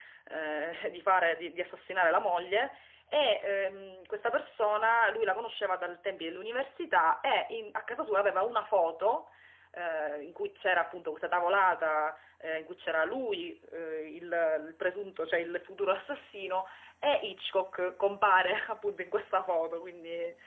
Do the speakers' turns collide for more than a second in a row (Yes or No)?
No